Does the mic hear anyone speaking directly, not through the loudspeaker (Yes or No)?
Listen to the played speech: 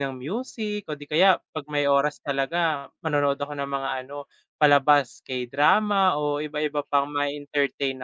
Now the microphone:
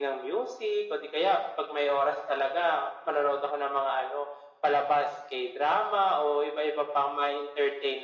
No